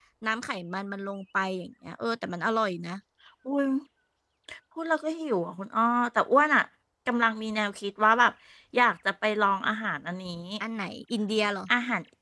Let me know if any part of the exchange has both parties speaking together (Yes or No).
No